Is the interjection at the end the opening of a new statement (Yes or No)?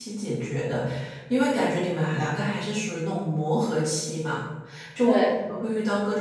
No